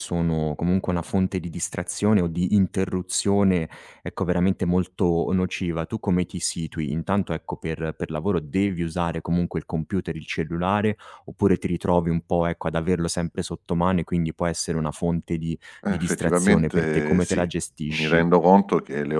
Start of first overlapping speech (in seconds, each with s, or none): 15.9 s